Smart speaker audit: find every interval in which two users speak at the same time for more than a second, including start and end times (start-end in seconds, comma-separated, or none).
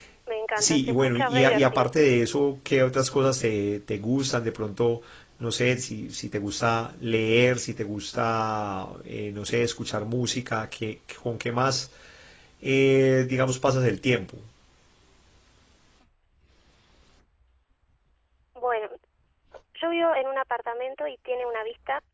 0.6-1.9